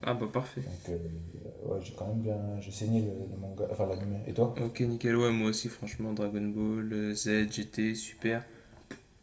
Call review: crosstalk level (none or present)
none